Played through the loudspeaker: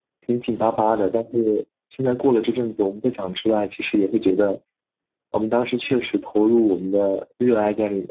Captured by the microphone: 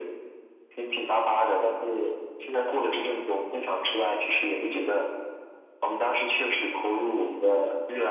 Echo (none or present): present